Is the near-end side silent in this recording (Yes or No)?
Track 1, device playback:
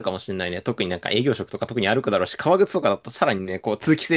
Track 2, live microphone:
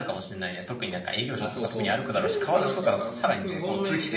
No